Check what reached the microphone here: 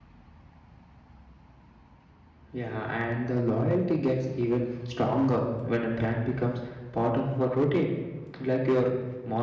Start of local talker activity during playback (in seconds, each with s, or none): 2.5 s